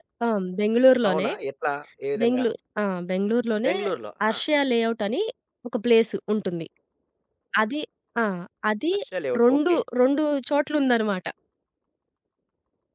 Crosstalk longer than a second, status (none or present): none